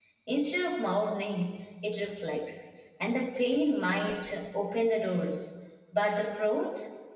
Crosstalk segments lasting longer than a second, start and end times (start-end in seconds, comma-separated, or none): none